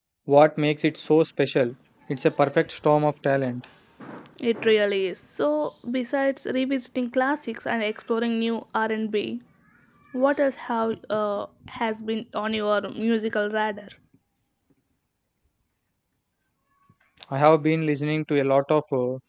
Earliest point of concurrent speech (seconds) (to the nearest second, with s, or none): none